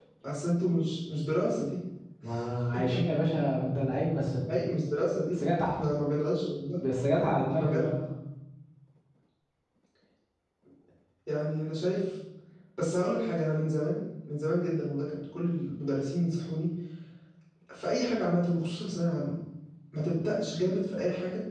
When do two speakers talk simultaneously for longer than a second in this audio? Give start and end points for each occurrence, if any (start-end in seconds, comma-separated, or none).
none